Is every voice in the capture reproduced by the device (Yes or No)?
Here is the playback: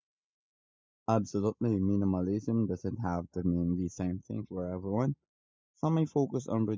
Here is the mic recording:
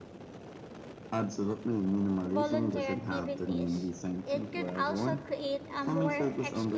No